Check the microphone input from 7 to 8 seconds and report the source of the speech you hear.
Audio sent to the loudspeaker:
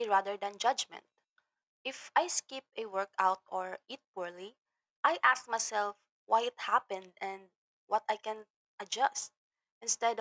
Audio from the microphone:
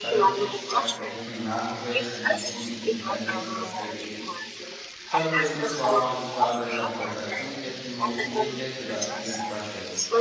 both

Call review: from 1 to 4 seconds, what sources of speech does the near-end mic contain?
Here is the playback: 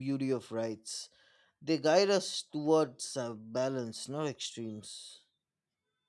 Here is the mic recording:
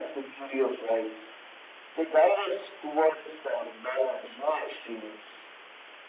echo only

